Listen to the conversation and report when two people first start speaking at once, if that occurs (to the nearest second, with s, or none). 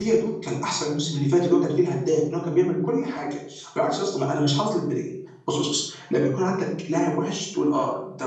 none